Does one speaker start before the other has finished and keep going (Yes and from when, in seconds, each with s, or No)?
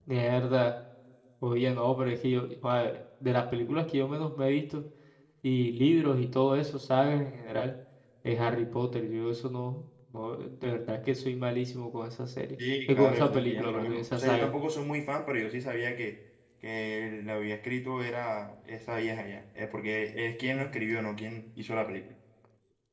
Yes, from 12.9 s